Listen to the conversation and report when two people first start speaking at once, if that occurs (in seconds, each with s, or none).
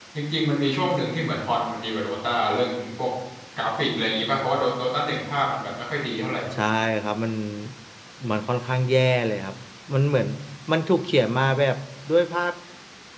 none